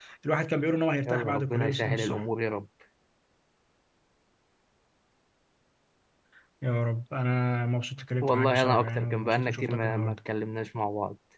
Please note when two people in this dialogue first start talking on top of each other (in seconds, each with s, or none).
1.1 s